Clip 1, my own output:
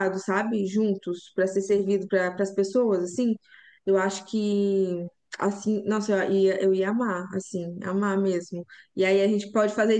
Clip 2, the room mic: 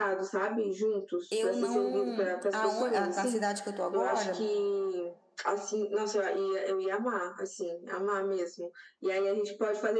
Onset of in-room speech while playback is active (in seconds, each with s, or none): 1.3 s